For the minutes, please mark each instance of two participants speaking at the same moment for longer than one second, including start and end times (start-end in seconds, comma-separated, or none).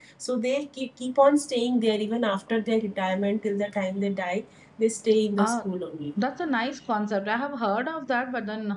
none